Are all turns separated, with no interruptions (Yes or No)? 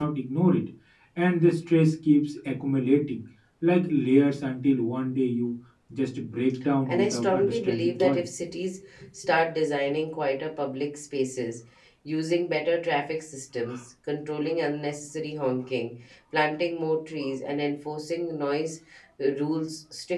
No